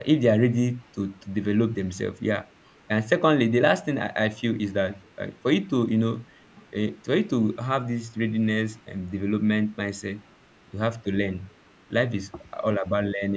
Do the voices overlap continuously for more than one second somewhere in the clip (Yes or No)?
No